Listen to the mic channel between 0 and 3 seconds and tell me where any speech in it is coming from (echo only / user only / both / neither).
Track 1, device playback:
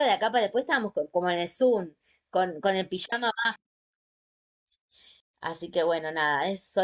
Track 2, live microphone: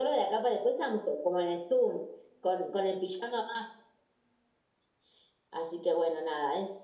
echo only